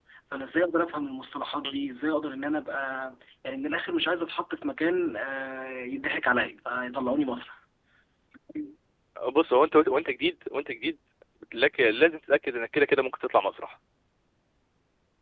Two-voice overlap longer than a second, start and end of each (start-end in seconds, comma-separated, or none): none